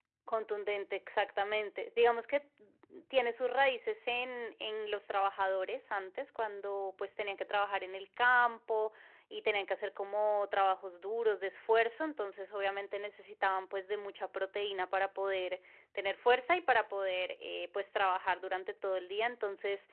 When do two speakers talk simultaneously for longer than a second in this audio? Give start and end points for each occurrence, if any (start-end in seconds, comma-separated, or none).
none